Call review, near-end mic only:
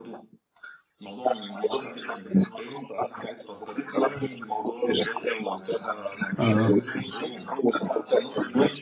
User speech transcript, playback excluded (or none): اه